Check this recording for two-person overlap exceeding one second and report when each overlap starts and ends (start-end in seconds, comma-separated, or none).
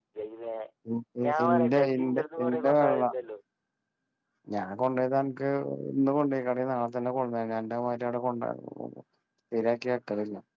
1.3-3.0